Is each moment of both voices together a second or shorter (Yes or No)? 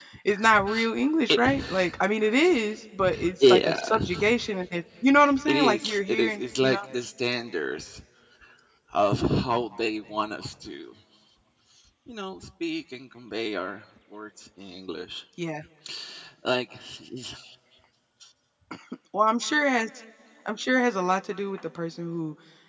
No